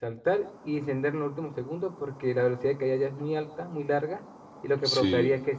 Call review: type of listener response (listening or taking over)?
listening